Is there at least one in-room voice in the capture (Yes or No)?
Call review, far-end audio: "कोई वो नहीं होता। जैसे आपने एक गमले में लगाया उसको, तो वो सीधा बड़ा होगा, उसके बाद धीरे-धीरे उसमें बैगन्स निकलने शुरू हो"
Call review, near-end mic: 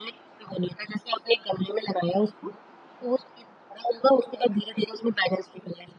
No